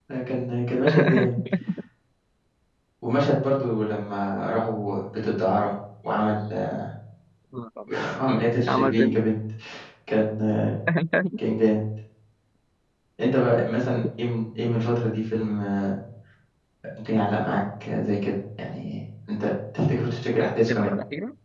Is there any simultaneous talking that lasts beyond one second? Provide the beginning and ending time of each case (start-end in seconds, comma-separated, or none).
none